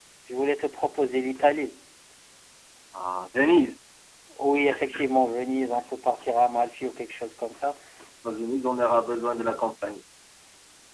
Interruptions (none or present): none